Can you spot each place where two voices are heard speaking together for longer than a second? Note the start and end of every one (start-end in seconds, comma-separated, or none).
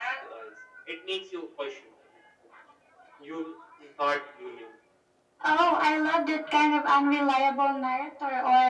none